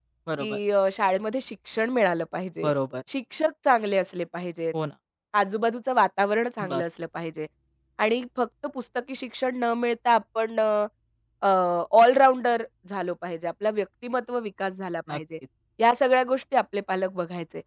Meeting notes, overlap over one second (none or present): none